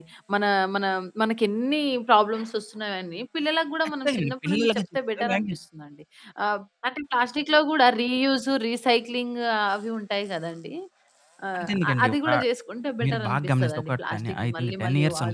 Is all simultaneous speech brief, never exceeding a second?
No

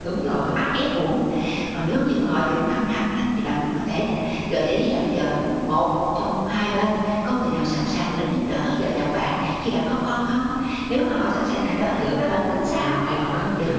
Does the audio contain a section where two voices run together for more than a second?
Yes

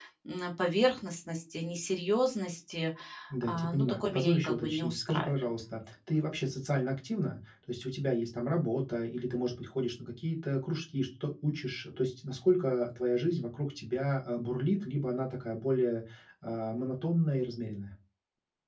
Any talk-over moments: Yes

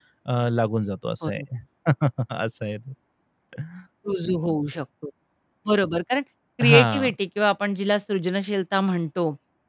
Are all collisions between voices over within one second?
Yes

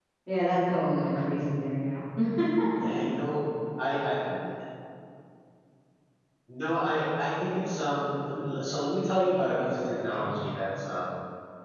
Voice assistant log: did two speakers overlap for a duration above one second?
No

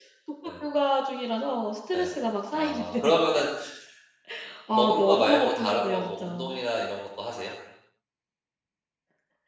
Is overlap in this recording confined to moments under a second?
No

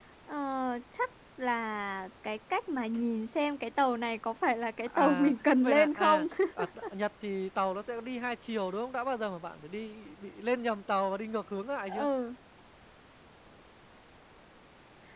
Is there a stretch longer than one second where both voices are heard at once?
Yes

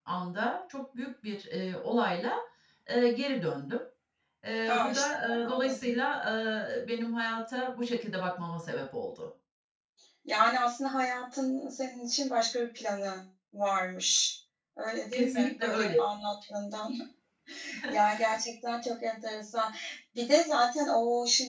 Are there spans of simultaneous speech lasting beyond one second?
Yes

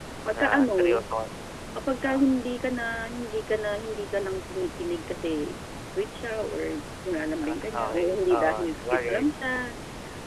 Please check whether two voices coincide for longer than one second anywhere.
Yes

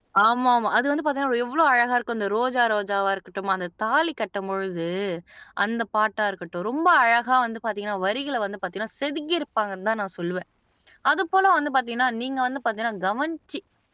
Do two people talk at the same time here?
No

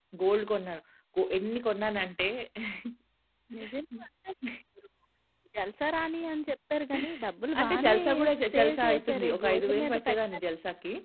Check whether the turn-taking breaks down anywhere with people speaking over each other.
Yes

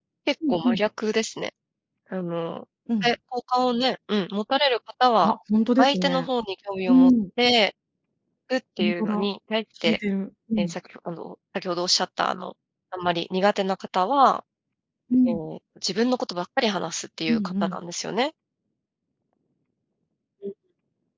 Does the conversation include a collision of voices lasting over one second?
No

